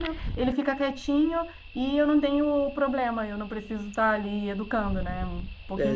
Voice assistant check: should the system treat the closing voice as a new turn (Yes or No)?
Yes